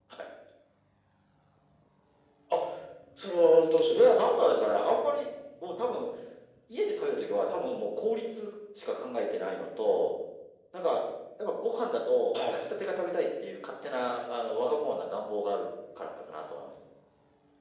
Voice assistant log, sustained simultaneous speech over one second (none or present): none